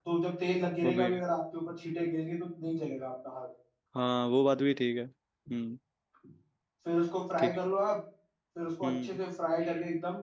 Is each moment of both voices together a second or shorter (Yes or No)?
Yes